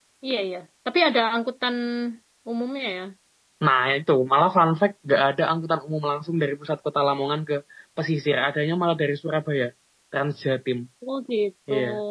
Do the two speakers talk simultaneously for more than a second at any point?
No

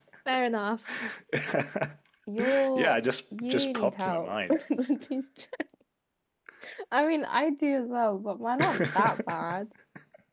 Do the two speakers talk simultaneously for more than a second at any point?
Yes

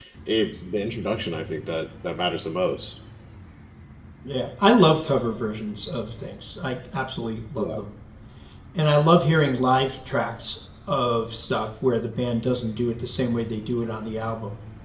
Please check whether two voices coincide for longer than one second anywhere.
No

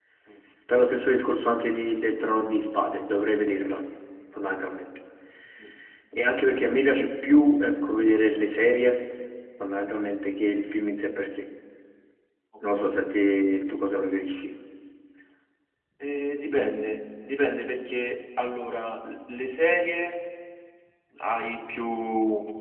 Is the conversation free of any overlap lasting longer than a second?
Yes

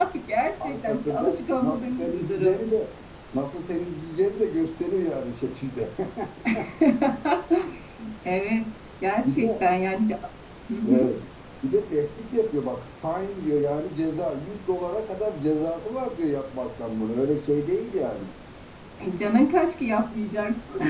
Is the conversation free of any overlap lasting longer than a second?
No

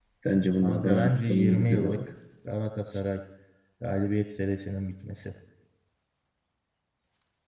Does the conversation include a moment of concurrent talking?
Yes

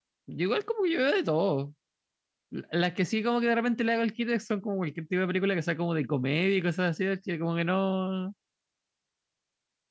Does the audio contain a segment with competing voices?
No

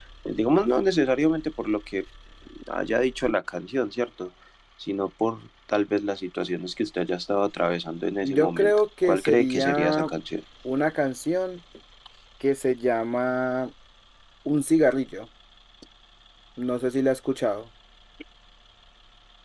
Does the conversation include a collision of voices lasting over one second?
Yes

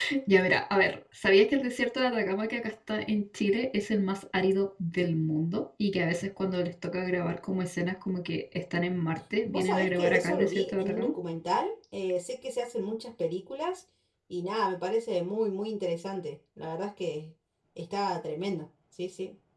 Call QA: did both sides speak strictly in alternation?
No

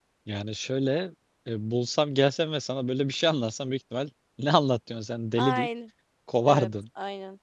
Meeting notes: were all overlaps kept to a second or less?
Yes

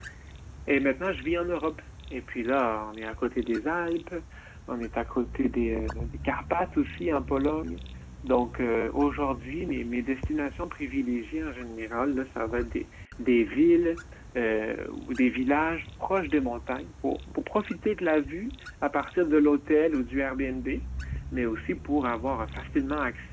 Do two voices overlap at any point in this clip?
No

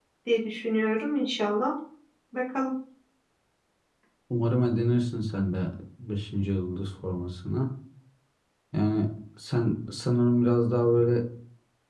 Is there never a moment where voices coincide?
Yes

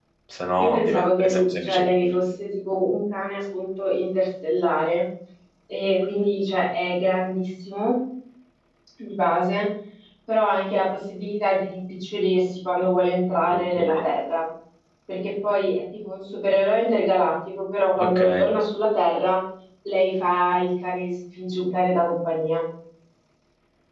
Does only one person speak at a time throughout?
No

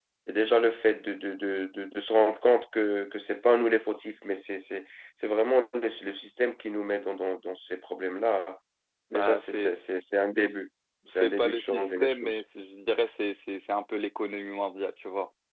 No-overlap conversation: No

